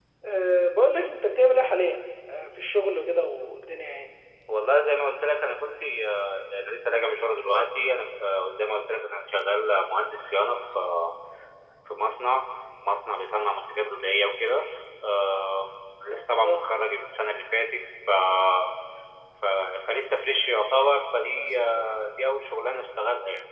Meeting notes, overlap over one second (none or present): none